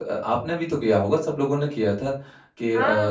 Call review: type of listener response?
listening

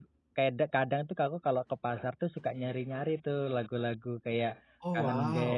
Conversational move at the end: listening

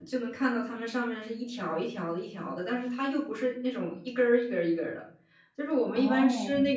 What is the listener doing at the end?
listening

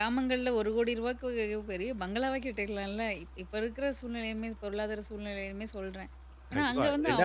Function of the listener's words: taking over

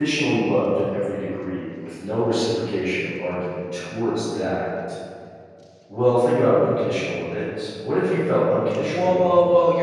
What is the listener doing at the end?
taking over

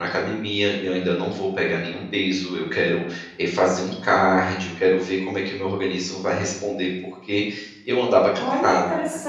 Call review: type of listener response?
taking over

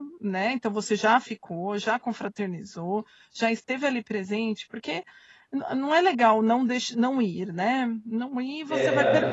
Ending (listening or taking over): listening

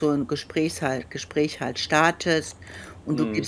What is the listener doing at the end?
listening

